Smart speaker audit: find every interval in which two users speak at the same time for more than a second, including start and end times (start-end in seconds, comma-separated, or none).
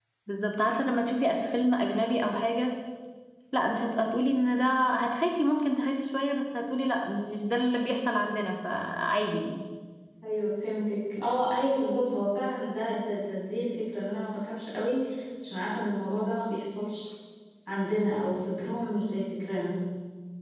none